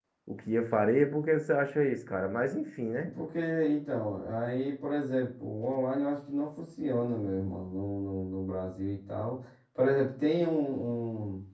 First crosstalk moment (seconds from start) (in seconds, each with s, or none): none